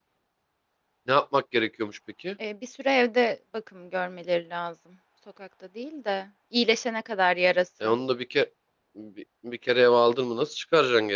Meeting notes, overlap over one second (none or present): none